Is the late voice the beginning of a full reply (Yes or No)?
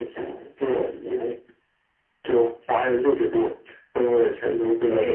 Yes